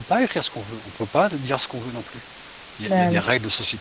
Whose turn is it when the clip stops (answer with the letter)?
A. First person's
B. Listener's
A